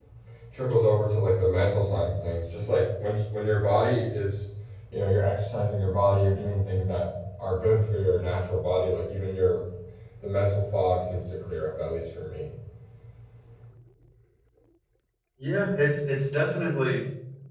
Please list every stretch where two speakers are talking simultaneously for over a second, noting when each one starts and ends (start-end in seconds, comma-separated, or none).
none